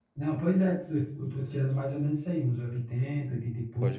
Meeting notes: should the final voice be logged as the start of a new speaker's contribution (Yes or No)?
Yes